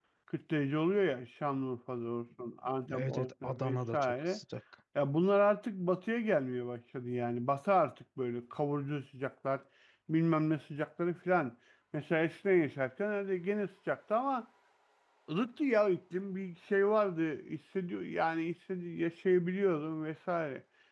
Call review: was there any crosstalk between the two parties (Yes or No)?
Yes